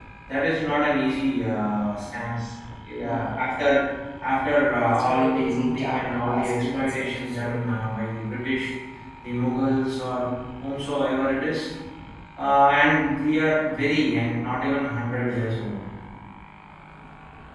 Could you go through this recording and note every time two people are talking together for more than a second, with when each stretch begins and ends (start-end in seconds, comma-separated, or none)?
4.8-7.6